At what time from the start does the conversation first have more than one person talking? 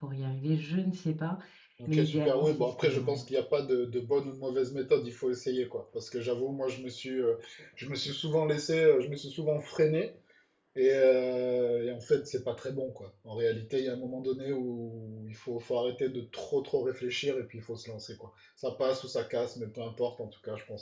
1.9 s

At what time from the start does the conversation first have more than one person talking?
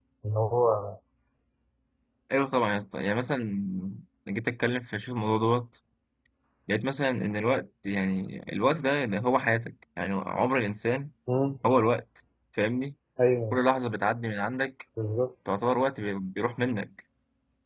none

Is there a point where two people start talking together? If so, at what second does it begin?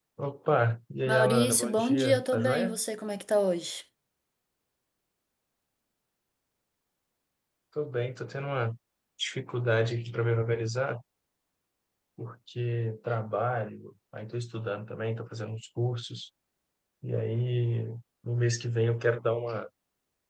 1.1 s

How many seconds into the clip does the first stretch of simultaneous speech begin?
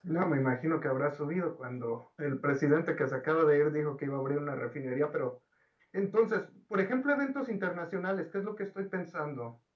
none

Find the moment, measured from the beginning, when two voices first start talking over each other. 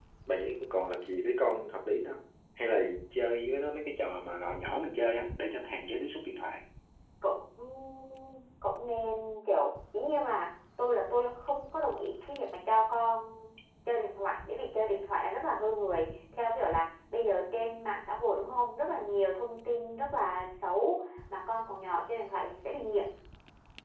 none

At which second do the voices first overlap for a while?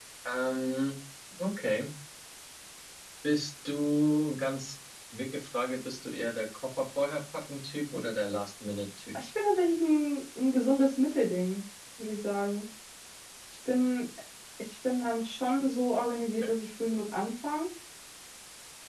none

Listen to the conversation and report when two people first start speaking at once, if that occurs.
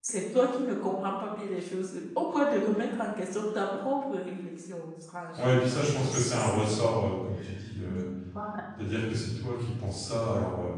5.4 s

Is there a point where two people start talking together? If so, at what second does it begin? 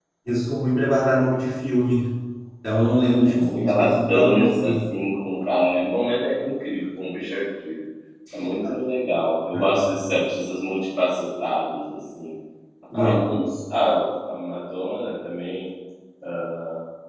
3.3 s

